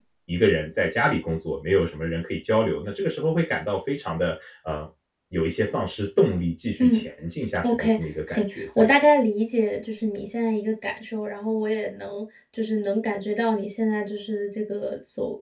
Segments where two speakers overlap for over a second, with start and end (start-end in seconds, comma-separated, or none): 7.6-8.9